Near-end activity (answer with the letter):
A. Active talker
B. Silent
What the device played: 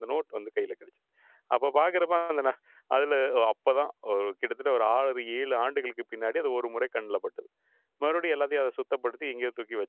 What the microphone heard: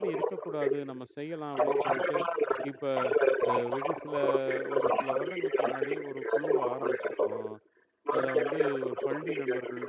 A